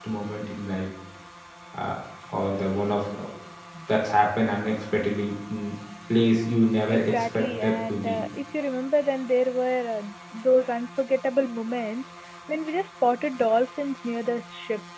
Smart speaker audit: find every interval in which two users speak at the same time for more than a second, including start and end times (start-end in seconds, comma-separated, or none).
6.9-8.2